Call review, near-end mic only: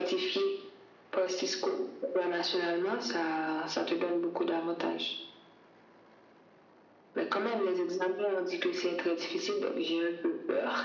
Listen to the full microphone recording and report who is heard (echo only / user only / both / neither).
echo only